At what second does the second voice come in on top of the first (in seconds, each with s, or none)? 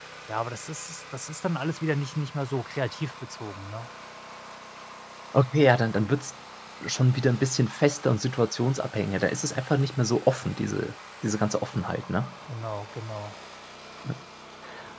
none